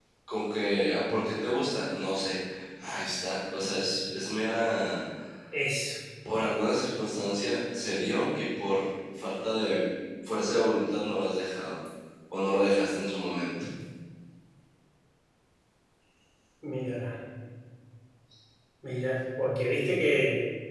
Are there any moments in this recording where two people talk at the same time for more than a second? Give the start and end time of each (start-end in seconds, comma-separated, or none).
none